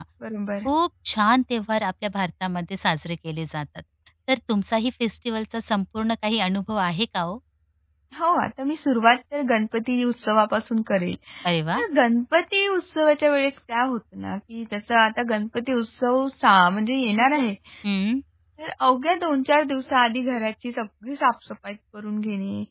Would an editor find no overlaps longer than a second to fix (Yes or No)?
Yes